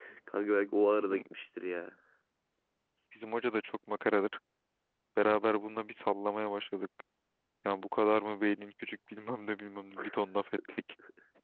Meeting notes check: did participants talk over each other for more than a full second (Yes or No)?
No